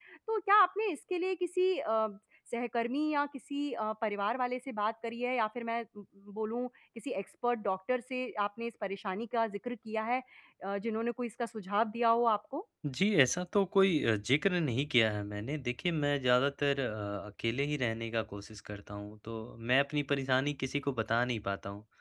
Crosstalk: none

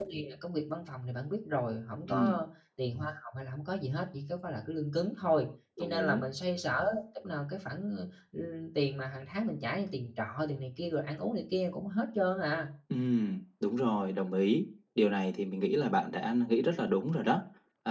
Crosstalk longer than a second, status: none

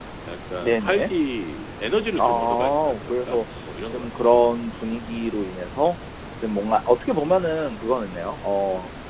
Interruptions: present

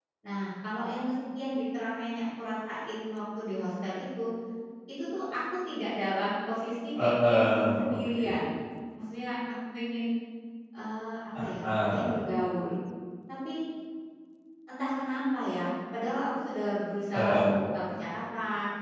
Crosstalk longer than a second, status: present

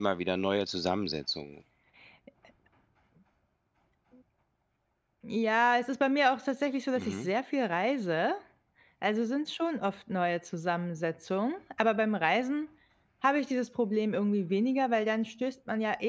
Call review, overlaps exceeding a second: none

